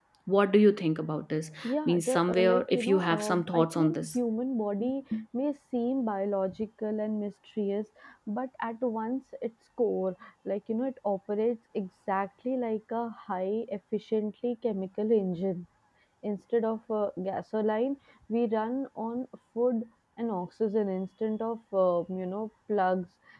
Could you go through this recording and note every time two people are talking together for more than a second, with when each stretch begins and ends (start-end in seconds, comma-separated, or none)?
1.9-4.2